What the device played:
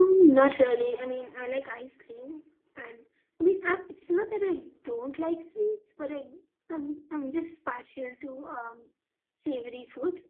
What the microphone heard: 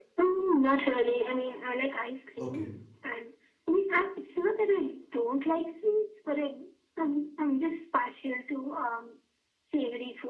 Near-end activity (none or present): present